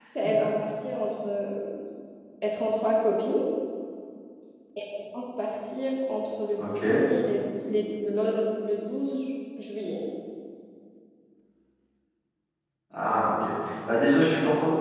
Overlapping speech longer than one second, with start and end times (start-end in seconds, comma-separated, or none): none